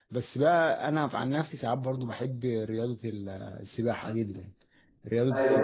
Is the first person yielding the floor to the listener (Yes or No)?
No